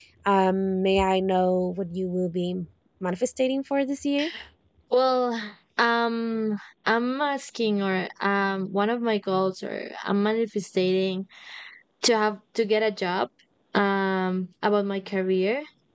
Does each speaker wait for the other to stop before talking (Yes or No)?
Yes